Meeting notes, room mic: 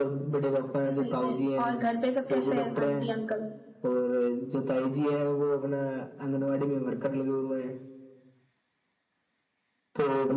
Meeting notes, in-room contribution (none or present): present